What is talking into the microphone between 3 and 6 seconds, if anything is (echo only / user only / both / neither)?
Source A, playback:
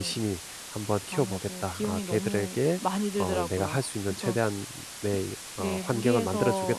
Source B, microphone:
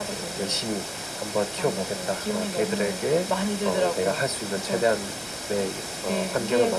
echo only